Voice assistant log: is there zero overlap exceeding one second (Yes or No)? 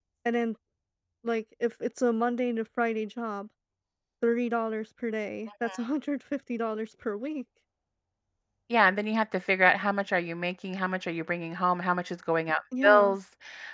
Yes